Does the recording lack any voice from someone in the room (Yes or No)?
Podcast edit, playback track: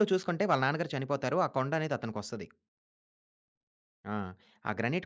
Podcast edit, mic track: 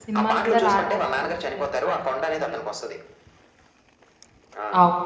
No